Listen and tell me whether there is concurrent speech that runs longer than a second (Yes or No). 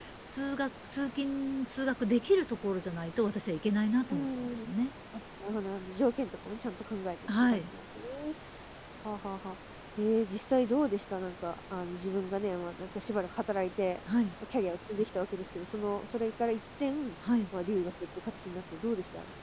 No